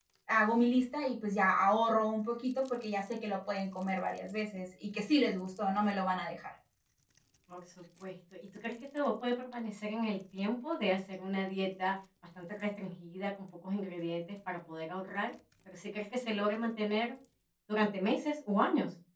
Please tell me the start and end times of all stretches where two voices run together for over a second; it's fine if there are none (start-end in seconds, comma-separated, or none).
none